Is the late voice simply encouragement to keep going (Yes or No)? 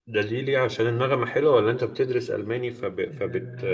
No